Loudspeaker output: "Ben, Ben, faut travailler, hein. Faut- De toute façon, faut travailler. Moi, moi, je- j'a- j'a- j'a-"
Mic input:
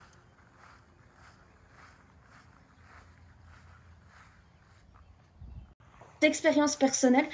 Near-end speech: present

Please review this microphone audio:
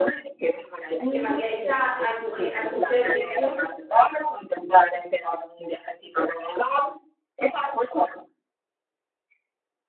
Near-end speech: present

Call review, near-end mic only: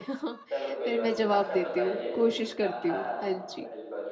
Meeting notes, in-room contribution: present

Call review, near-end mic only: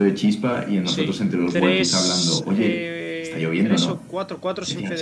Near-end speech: present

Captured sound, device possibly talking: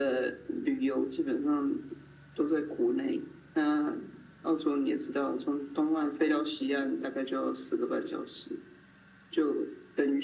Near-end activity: none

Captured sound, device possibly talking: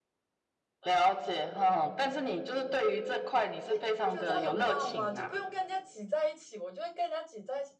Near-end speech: present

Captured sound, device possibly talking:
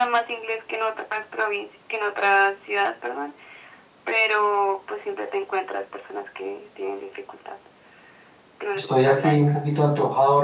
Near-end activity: present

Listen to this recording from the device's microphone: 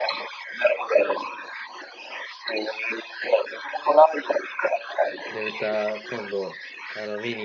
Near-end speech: present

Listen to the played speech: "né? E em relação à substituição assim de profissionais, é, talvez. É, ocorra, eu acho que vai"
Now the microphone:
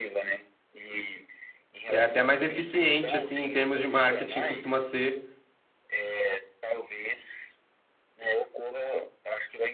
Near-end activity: present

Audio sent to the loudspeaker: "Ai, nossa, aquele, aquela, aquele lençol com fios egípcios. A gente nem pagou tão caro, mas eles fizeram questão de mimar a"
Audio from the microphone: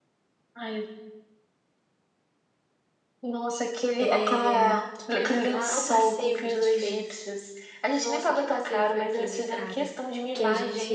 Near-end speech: present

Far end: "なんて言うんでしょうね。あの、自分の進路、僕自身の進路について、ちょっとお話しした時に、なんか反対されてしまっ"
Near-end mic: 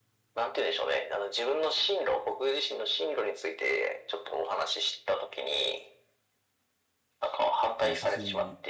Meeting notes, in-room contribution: present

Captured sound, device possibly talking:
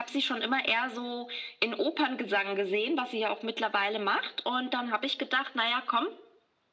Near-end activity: none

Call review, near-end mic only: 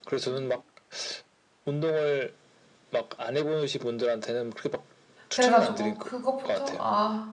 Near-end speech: present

